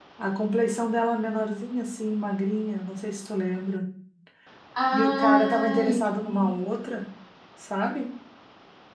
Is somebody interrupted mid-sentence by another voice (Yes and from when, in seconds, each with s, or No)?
Yes, from 4.9 s